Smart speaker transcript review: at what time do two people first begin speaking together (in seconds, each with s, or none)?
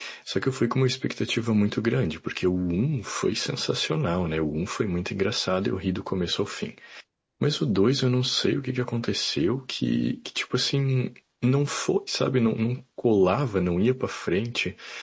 none